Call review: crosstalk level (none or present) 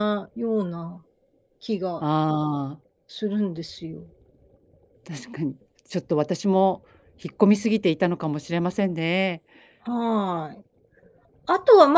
none